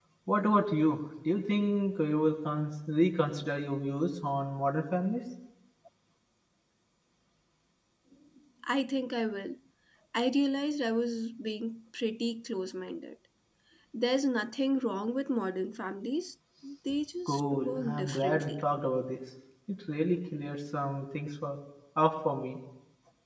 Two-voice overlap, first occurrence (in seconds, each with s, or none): 17.3 s